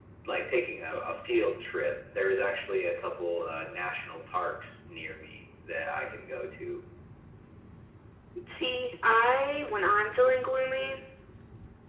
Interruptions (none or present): none